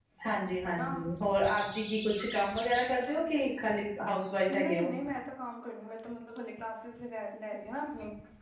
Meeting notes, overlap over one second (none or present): none